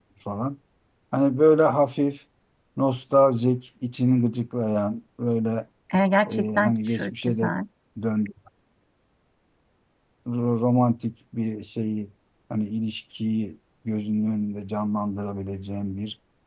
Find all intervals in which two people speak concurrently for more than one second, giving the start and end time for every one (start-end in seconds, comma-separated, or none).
6.3-7.5